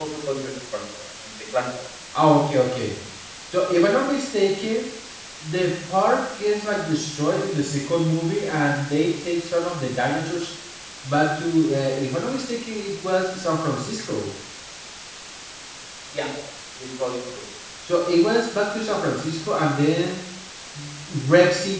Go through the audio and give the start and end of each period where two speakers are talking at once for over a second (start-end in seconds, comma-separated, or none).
none